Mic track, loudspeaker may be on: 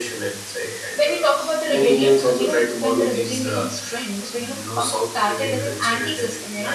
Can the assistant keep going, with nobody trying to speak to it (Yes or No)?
No